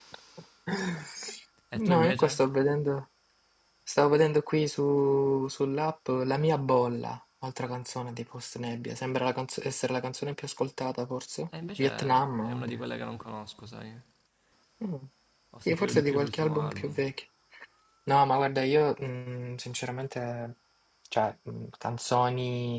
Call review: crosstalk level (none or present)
present